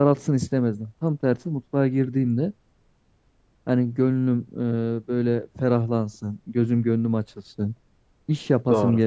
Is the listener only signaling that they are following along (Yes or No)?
Yes